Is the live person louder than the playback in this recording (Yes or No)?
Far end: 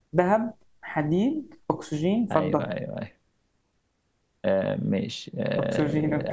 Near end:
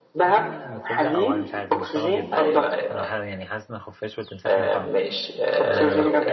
No